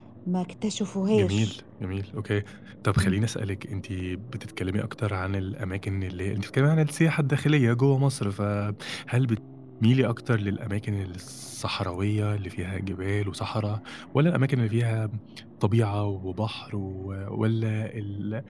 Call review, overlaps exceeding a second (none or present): none